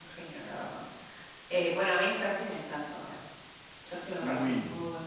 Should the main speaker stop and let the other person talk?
Yes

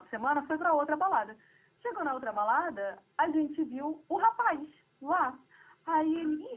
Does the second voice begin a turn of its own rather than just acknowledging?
No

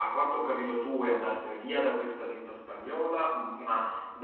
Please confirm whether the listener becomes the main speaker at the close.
No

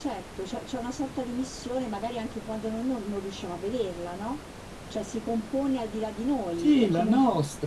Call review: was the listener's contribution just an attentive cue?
No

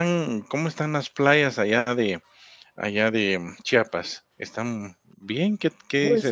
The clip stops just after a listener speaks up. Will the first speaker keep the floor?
No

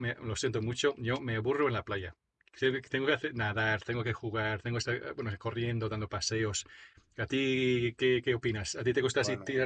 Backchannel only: Yes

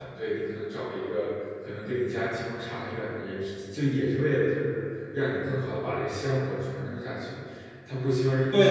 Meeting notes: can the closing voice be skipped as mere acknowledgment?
No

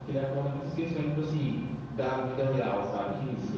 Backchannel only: Yes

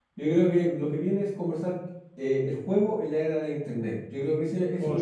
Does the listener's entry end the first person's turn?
Yes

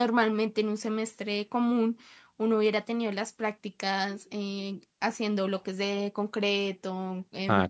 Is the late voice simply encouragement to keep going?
Yes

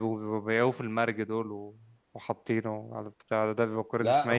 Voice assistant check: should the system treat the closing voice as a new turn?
Yes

